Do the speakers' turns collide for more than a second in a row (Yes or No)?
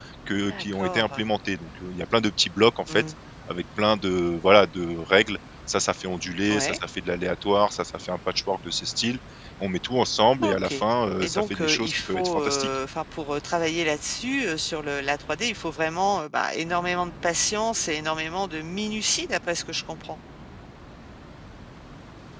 Yes